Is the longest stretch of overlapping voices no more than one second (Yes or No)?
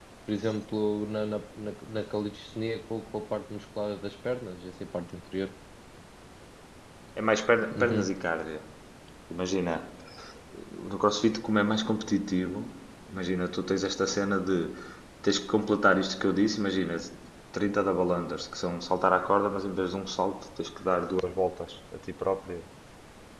Yes